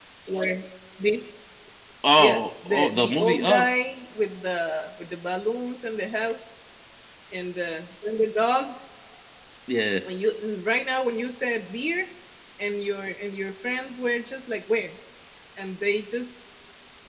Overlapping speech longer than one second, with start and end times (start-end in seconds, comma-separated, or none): 2.2-3.7